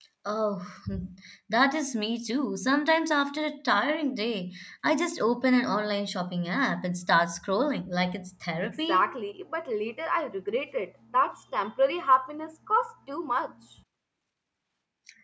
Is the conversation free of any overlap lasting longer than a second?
Yes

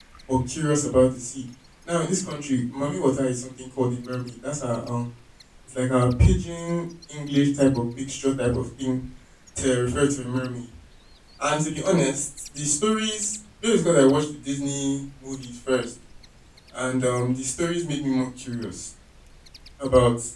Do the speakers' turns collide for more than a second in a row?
No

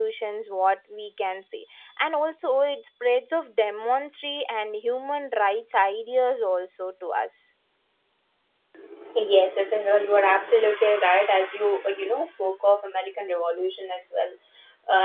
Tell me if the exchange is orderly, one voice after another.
Yes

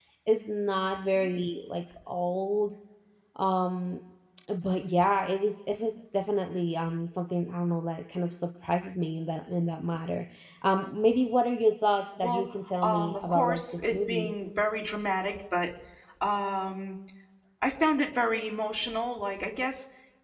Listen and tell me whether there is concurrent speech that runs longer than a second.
Yes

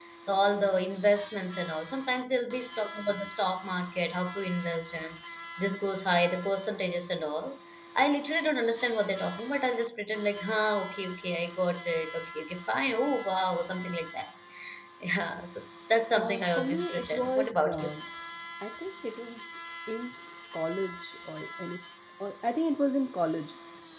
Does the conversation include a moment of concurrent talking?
Yes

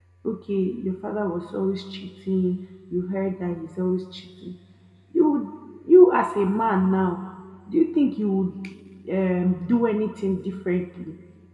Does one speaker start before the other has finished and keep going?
No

